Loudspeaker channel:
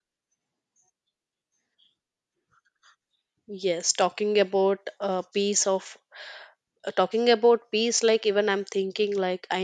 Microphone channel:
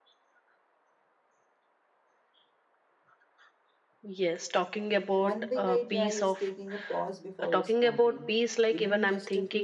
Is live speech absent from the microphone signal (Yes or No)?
No